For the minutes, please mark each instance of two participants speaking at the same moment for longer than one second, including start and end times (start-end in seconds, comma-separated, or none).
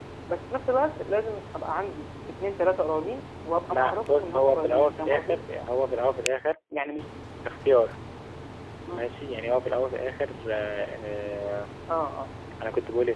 3.6-5.4